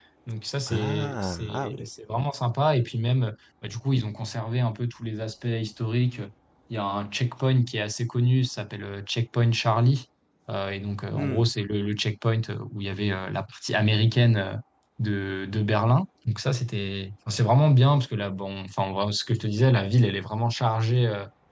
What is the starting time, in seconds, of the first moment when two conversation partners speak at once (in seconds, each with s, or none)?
0.7 s